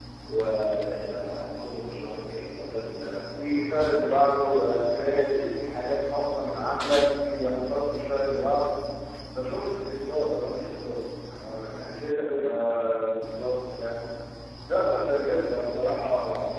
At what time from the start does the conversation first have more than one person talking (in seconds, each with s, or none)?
none